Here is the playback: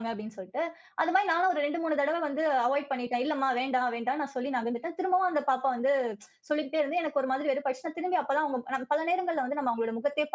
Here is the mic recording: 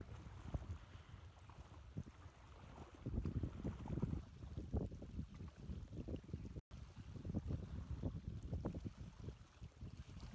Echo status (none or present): none